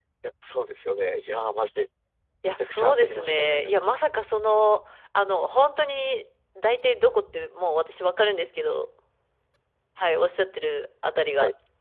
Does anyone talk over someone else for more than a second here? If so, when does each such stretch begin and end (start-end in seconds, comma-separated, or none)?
2.6-3.9